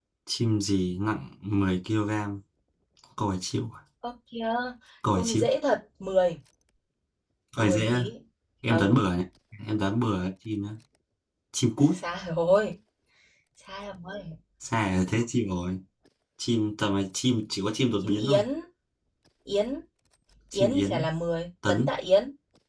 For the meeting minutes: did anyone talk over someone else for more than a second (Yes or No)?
No